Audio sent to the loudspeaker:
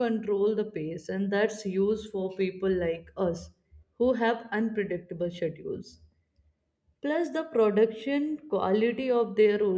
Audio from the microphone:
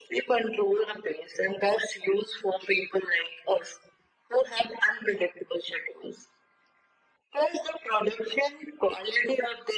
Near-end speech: none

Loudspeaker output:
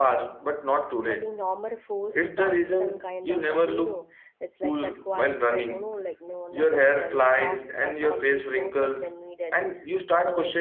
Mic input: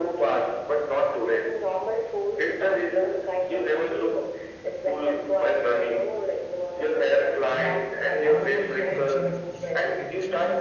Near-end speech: present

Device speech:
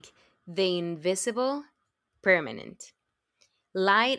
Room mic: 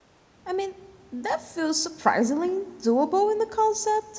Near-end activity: present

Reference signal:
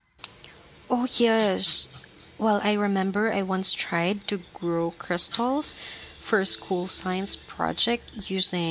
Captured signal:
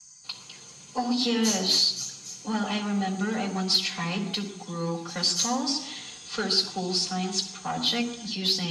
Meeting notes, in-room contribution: none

